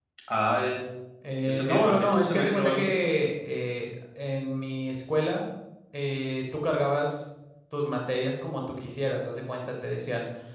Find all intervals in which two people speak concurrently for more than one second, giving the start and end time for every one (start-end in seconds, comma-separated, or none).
1.4-3.0